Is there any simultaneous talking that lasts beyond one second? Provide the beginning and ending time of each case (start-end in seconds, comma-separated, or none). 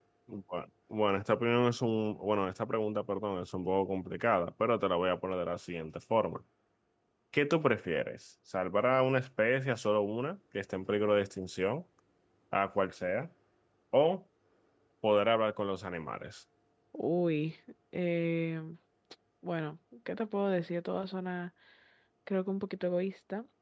none